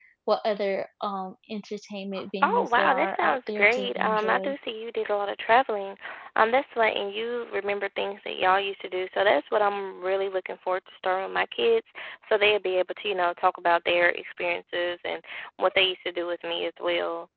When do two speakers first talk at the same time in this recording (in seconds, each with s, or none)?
2.4 s